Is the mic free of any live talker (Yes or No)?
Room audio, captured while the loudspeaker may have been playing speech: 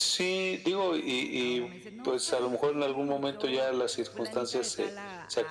No